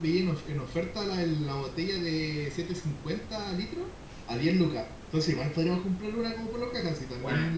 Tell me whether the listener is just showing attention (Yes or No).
No